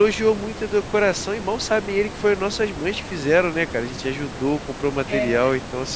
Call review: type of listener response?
listening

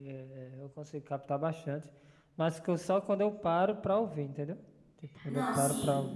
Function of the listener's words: listening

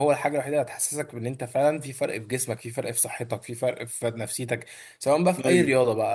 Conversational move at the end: listening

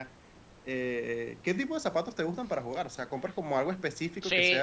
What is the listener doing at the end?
taking over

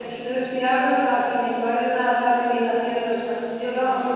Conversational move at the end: listening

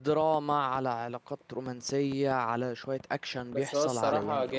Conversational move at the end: taking over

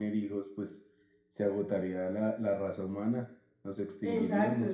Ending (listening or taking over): taking over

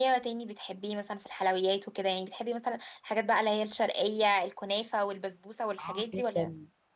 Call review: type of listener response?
taking over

